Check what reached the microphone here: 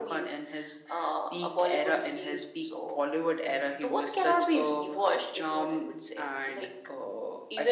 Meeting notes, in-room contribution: none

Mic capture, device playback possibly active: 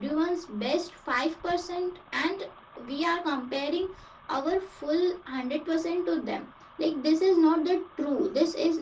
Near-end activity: none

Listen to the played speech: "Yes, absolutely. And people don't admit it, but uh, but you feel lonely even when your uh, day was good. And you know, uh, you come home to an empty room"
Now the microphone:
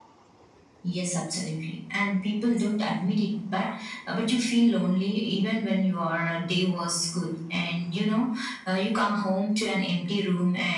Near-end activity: none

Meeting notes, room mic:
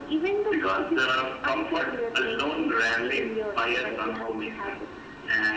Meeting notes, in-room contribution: none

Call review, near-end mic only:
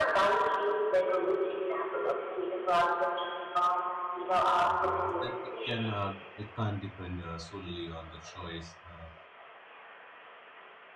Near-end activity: present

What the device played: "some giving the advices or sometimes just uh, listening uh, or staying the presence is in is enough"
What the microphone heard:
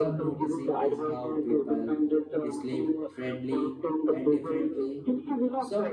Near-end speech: present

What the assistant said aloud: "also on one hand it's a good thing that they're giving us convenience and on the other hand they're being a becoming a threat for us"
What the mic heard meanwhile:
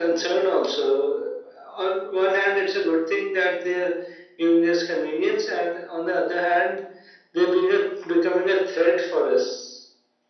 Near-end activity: none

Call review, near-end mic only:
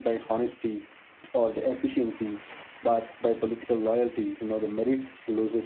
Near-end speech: present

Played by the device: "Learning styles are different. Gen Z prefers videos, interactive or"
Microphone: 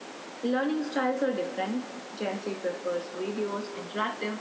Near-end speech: none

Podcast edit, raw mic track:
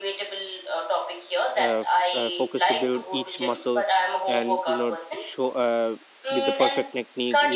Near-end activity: present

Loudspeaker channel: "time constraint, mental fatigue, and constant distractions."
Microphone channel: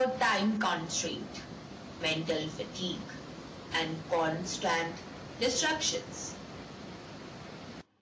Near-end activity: none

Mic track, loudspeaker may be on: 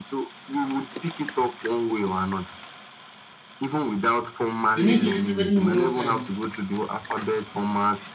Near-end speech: present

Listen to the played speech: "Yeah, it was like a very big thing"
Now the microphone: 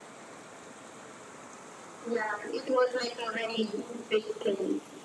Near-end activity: none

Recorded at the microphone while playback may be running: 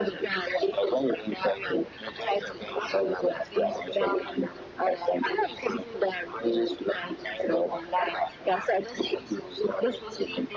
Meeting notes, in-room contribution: none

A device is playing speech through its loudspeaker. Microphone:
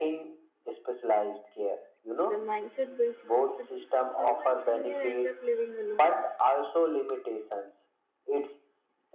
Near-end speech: present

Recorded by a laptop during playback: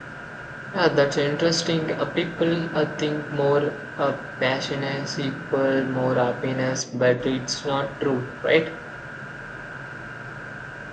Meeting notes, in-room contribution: present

